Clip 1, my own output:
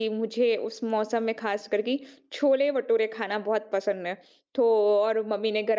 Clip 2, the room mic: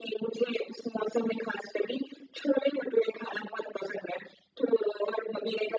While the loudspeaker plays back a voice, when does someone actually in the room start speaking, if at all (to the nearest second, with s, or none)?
none